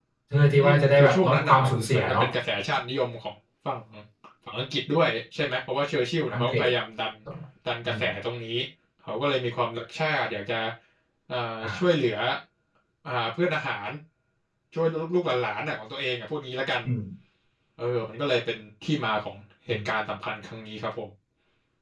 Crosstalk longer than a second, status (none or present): present